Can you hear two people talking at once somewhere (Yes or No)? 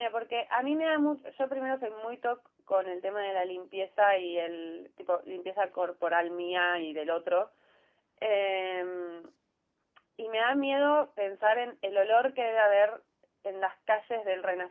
No